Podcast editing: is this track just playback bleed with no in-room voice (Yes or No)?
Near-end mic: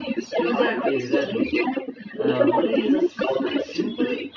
No